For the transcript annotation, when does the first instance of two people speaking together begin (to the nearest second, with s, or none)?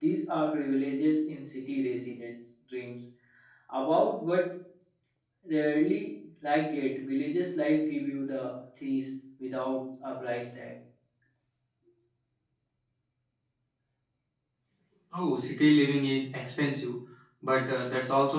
none